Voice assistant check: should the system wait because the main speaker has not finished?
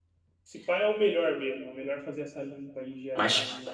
No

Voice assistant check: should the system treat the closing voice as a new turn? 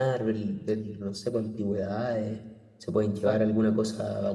No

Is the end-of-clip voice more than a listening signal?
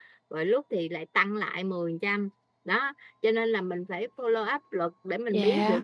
No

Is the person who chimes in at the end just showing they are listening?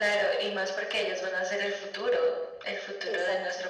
Yes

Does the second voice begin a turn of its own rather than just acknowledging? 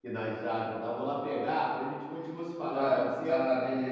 Yes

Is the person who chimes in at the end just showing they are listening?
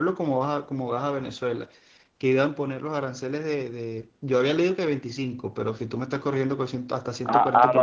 No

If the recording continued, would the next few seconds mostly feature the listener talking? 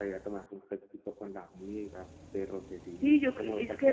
Yes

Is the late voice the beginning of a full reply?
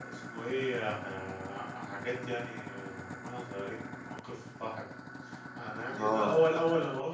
No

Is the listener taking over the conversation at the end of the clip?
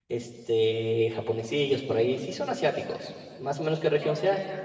Yes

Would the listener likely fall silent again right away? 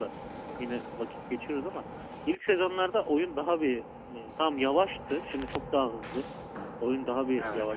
Yes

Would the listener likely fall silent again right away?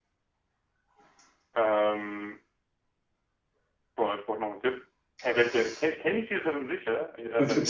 No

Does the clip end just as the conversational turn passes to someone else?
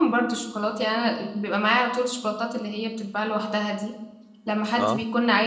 No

